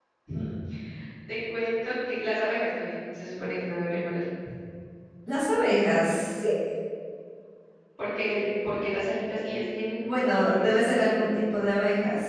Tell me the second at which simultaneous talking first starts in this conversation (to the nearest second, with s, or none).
10 s